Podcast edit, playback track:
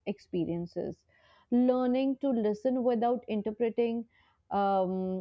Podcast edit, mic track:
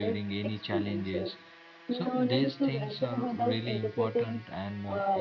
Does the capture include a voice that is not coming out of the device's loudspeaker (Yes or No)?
Yes